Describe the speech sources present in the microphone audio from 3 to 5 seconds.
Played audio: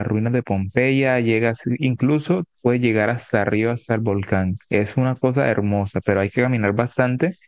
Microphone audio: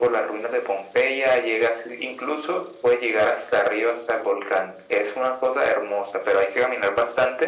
echo only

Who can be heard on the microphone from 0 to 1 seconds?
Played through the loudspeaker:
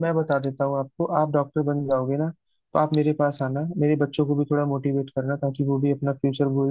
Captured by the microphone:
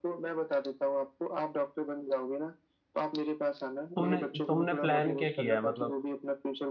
echo only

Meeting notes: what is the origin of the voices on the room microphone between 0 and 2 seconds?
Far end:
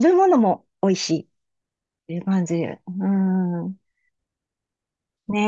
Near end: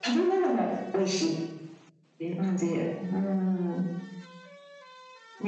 echo only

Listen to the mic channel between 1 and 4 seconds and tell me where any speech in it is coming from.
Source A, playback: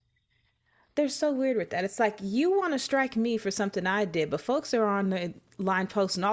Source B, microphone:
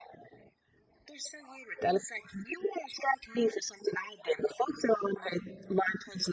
echo only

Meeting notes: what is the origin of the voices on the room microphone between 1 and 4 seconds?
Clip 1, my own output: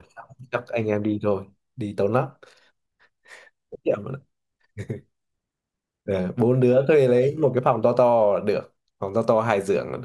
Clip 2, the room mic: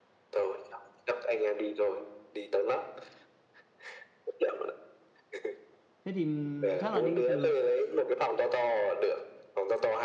echo only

